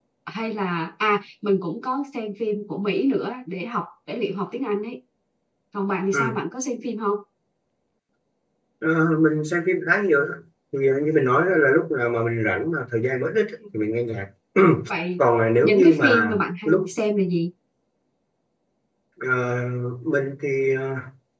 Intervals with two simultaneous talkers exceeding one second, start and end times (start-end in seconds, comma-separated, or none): 15.6-16.9